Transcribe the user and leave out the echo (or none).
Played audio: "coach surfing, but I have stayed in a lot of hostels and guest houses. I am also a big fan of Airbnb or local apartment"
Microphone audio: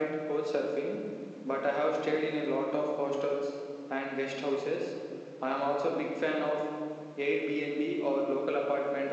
none